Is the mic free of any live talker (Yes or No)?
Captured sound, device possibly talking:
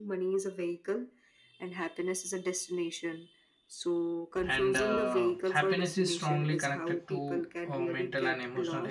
No